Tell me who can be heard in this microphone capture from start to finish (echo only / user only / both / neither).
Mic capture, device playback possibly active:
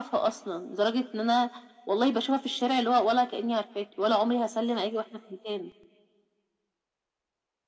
echo only